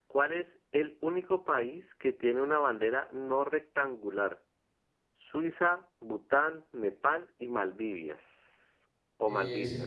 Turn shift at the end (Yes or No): Yes